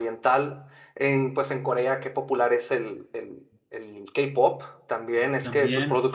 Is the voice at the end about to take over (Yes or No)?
Yes